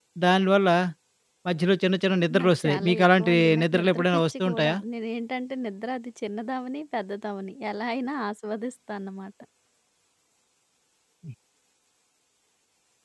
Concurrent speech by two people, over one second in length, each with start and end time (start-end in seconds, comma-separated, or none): 2.4-4.8